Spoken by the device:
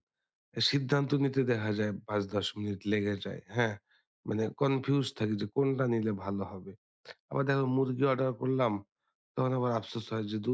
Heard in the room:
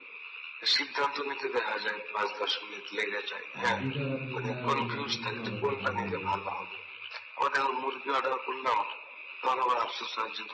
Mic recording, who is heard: both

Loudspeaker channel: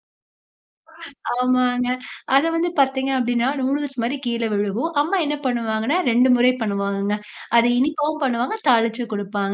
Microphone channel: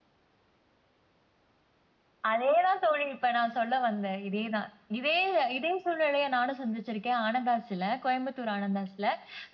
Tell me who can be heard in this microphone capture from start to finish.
user only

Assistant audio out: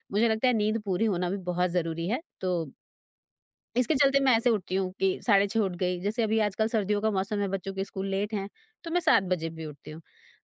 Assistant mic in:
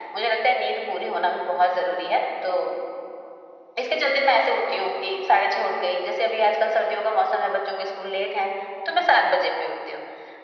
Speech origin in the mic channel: echo only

